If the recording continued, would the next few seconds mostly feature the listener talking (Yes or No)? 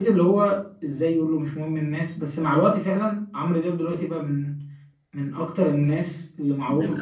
Yes